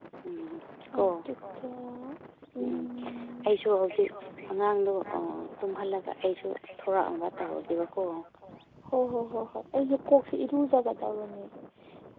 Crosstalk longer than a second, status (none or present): none